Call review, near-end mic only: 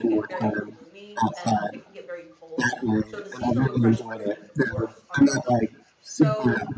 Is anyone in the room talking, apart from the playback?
Yes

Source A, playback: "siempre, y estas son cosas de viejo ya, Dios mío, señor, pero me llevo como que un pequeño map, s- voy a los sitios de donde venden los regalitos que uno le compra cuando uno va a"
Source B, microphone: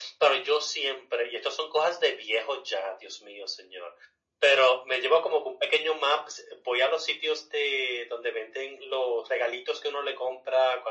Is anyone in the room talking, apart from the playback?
No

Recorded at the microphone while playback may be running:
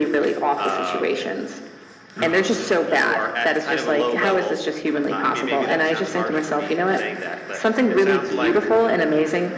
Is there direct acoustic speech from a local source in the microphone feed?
No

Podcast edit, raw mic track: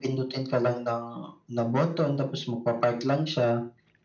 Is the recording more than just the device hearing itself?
No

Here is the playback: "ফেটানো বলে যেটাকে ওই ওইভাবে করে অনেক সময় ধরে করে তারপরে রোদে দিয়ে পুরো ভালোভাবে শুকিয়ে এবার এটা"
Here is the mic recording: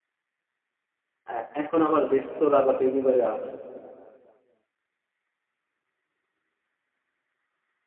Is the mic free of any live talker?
No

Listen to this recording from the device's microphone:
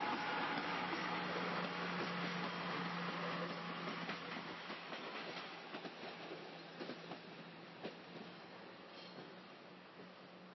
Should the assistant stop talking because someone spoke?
No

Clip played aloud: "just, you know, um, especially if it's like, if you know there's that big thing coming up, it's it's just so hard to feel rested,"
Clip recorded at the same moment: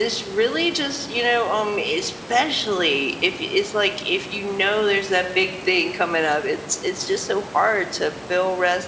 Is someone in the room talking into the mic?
No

